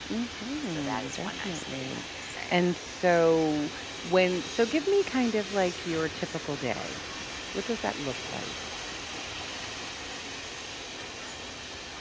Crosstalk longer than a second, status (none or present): present